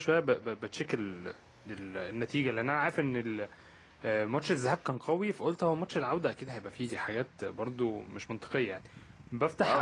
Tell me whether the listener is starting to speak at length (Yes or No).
No